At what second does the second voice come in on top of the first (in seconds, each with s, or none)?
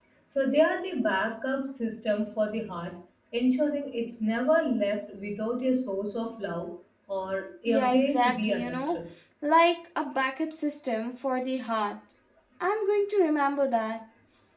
7.7 s